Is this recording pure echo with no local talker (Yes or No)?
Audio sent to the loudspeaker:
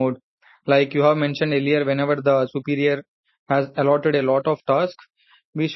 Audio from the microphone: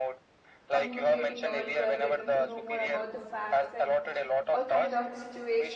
No